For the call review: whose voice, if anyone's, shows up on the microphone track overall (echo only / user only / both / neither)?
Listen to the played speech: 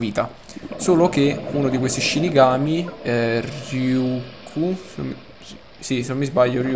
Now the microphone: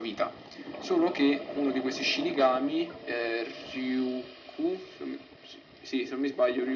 echo only